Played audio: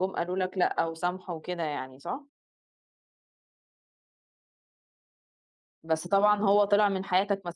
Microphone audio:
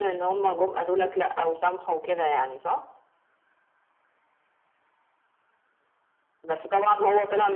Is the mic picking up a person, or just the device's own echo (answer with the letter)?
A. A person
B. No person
B